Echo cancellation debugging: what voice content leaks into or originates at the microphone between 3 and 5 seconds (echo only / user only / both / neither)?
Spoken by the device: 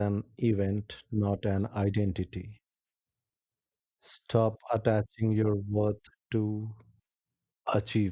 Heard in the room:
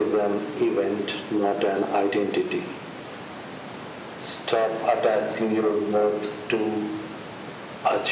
echo only